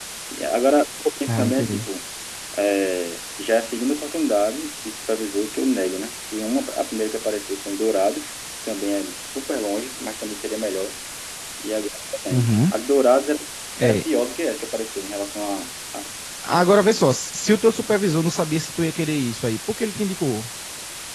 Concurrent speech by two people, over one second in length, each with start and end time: none

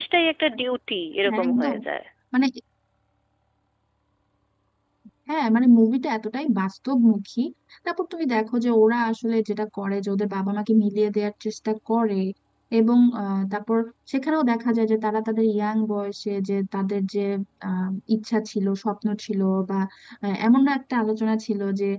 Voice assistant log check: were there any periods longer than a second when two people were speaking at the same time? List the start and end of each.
none

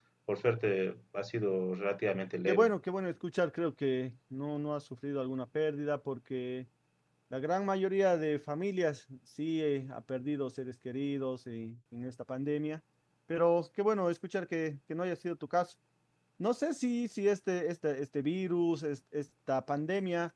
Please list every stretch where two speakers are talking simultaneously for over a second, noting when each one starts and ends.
none

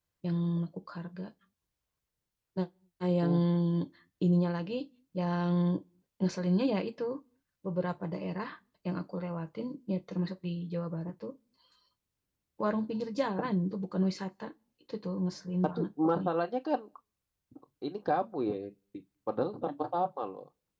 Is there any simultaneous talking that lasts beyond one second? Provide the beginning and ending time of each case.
none

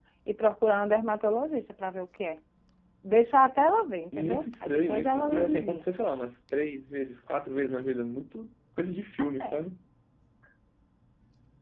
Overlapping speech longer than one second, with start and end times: 4.2-5.8

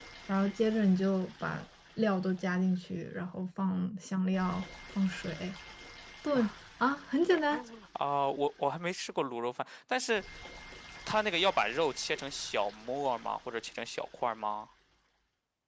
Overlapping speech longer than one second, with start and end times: none

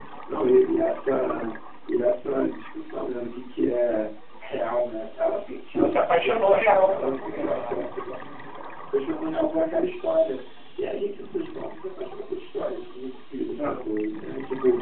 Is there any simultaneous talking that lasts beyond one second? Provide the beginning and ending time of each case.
5.7-7.8

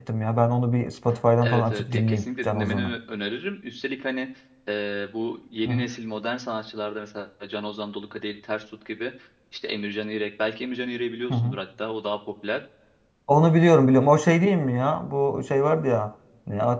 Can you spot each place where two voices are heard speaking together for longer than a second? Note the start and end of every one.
1.4-2.9

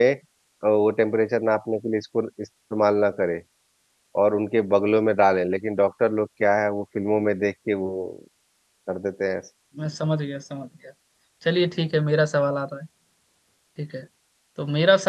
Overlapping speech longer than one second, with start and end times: none

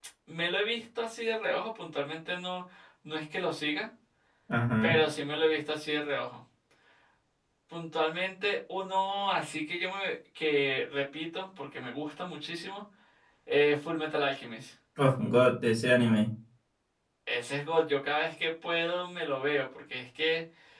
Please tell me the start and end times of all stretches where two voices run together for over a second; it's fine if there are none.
none

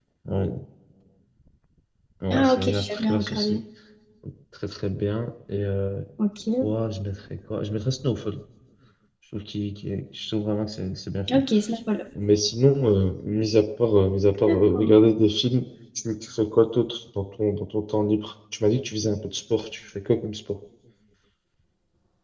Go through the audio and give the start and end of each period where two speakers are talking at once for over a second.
2.3-3.6

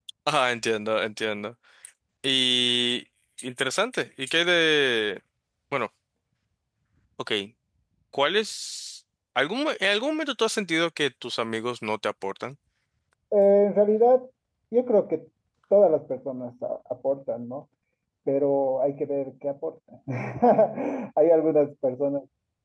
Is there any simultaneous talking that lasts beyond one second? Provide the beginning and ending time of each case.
none

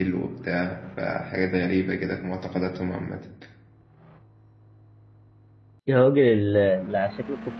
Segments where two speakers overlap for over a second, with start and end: none

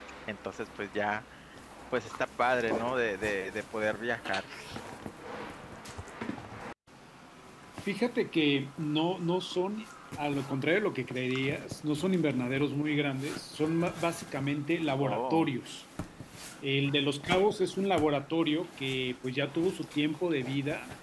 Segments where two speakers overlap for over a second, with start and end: none

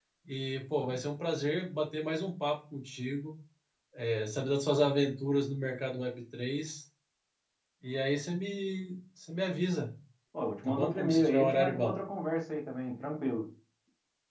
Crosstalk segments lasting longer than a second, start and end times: 10.7-11.9

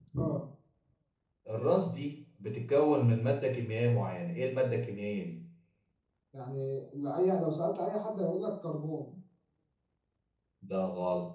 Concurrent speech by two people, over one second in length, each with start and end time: none

